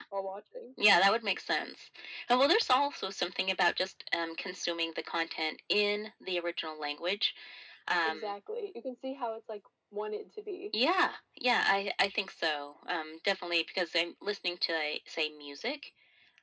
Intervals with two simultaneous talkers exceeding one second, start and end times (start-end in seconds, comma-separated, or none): none